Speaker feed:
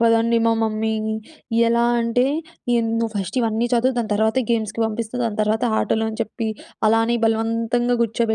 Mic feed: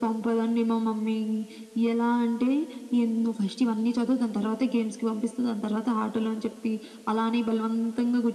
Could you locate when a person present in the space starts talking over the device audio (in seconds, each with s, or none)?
none